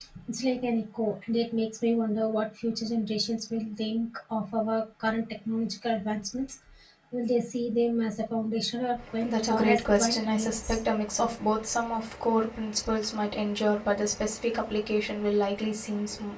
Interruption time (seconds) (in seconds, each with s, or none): 9.0 s